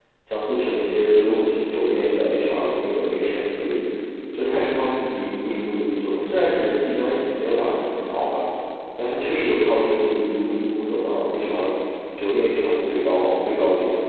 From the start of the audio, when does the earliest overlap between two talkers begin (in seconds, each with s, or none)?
none